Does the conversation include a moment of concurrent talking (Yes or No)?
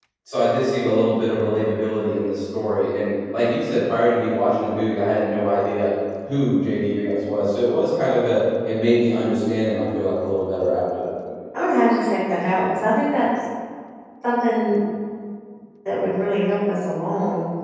No